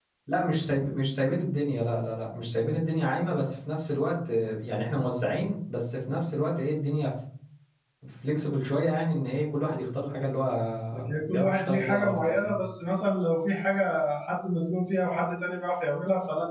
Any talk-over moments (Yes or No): Yes